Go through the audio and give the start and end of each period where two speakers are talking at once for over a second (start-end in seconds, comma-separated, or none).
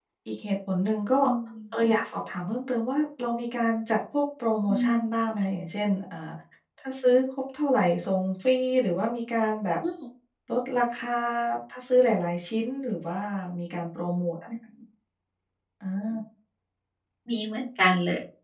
none